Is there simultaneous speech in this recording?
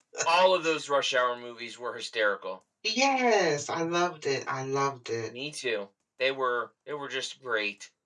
No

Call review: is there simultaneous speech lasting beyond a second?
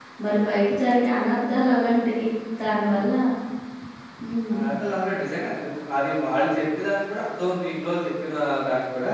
No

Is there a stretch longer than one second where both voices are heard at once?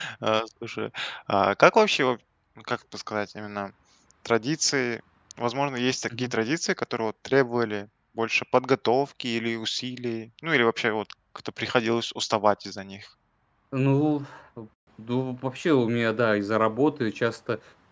No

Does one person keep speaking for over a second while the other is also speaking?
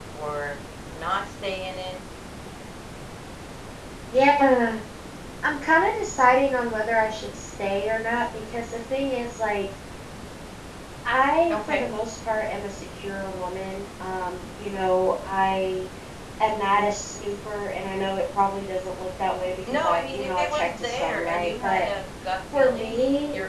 Yes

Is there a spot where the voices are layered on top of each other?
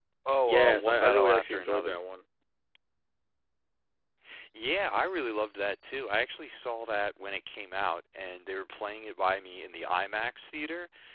Yes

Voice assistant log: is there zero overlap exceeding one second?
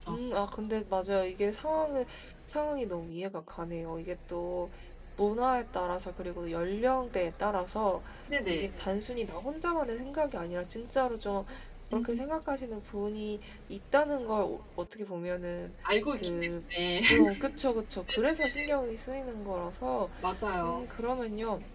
Yes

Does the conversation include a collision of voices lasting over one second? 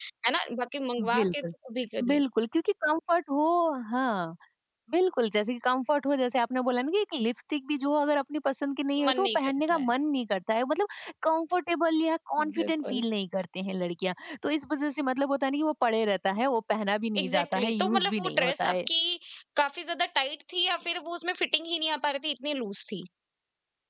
Yes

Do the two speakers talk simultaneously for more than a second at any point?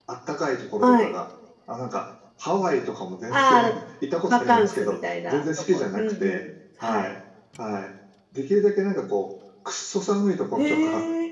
Yes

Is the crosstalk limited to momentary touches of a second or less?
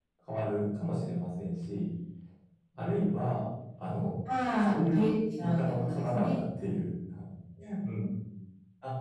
No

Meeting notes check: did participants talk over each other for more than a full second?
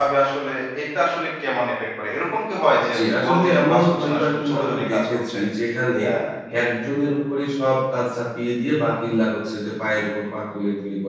Yes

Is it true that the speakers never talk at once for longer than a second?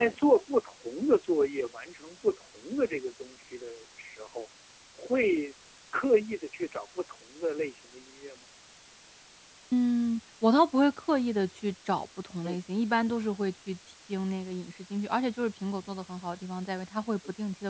Yes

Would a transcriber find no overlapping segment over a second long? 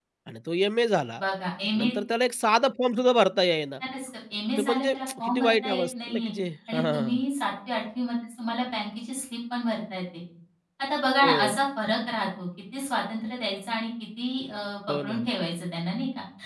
No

